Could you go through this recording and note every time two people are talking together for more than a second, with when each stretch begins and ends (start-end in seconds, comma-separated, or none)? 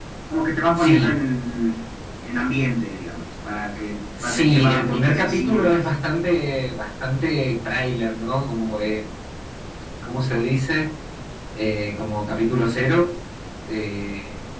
4.2-5.9